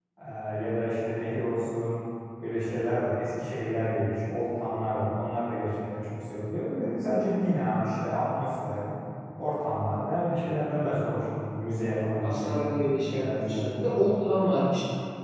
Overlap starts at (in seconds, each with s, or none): 12.2 s